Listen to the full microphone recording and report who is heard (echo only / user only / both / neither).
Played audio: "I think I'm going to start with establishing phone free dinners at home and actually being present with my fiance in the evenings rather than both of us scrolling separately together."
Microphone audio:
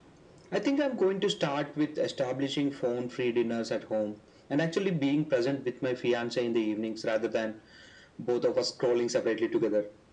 echo only